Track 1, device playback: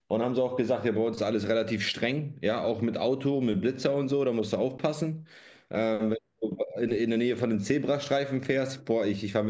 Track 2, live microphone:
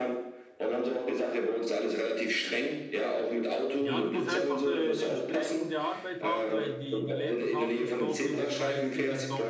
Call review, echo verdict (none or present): present